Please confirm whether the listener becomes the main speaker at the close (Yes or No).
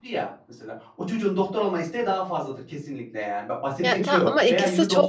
Yes